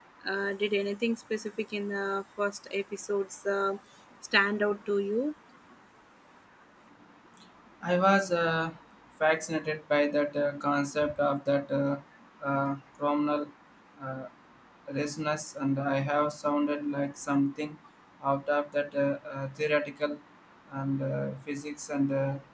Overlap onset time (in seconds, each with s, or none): none